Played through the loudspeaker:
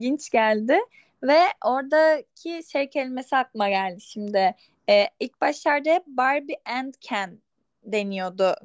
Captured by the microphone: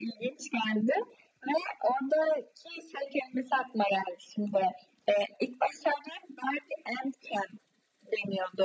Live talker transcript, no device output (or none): none